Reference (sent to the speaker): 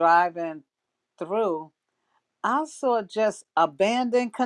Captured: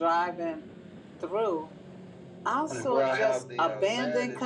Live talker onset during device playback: 2.7 s

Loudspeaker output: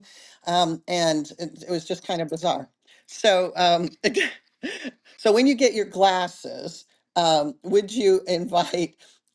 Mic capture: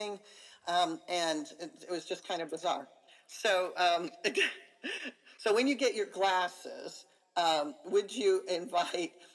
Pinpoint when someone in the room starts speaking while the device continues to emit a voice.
none

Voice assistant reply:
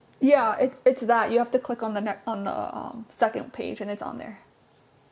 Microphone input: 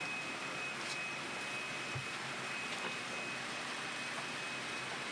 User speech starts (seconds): none

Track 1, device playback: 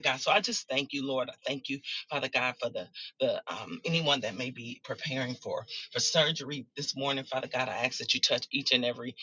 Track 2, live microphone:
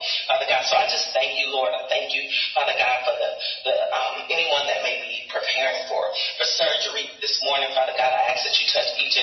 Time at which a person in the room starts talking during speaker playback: none

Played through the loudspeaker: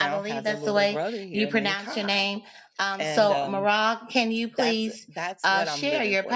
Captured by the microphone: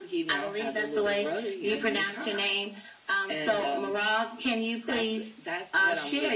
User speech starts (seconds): none

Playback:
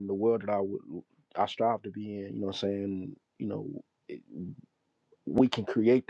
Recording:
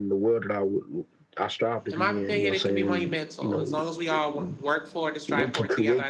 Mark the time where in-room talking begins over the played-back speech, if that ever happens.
1.9 s

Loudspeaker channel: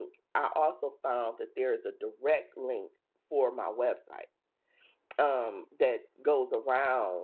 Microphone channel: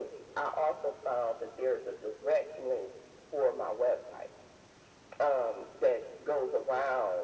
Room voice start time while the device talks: none

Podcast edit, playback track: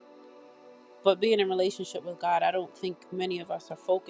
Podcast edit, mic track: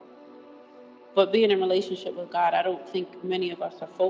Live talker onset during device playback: none

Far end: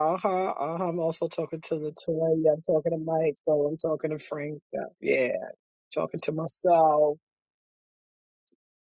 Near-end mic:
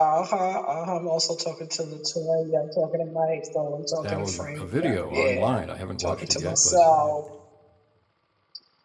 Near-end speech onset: 4.0 s

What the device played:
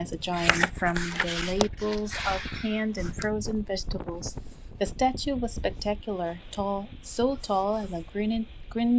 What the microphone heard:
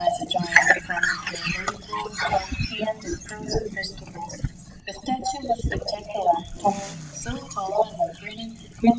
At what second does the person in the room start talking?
none

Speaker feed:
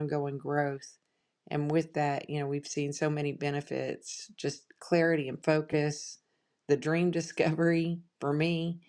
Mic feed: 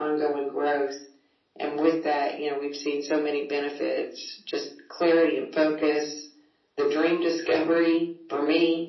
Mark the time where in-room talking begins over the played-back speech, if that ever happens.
none

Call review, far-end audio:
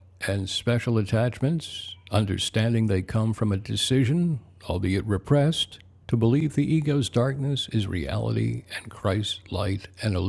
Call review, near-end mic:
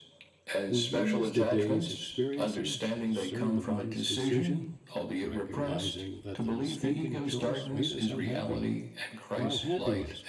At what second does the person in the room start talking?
0.7 s

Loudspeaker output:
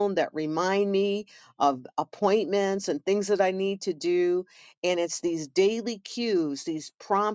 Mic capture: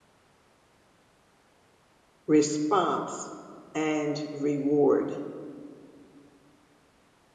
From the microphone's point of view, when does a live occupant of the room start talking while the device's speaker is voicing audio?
2.3 s

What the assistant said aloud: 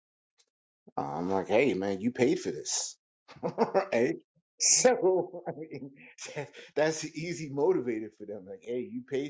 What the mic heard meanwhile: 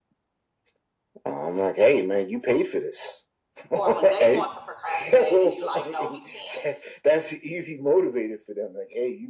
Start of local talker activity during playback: 3.7 s

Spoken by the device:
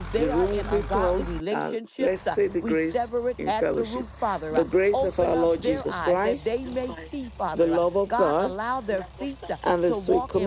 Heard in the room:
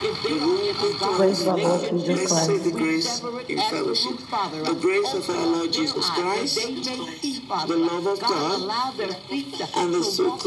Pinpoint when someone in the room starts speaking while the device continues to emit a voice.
1.1 s

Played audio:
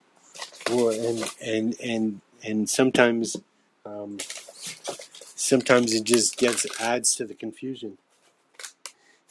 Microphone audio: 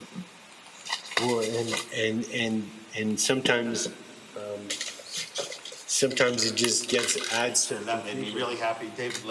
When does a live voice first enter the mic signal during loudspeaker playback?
7.5 s

